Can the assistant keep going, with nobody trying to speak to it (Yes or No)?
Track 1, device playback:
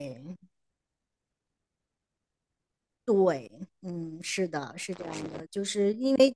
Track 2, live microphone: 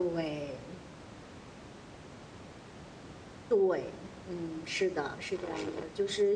Yes